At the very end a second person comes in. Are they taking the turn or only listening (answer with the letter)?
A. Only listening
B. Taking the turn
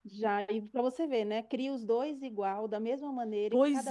B